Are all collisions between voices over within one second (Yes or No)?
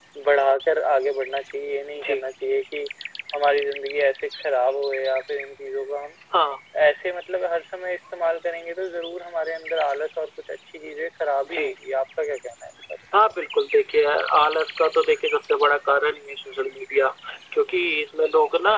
Yes